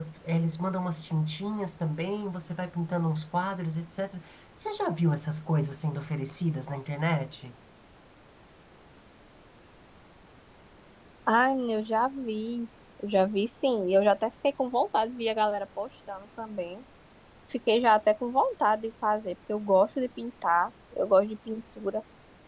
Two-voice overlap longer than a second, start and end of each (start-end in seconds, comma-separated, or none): none